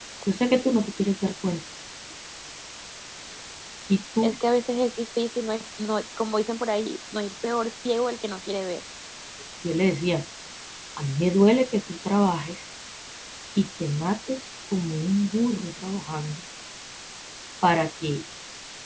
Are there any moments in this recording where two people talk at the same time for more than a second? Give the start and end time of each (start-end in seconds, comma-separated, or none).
none